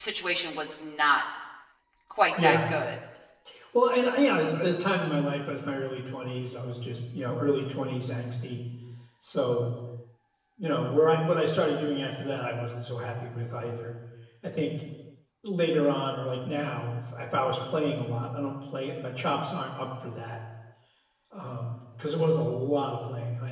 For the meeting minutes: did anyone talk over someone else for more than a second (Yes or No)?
No